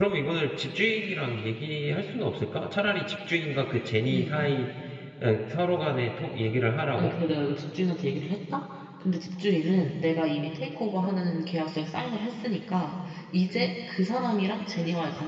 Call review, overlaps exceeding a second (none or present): none